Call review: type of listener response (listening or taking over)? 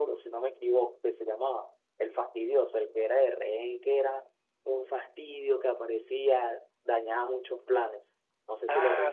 taking over